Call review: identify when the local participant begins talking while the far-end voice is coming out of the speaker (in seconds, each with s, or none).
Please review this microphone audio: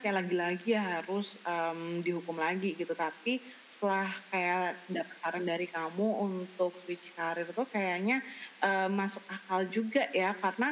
none